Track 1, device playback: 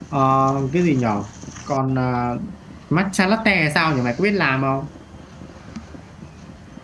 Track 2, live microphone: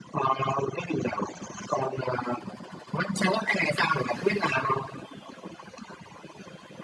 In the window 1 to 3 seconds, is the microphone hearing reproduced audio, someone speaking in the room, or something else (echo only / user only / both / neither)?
echo only